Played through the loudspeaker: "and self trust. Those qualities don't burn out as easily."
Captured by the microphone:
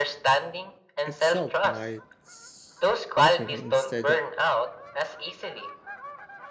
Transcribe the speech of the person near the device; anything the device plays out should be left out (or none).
itself might soften instead of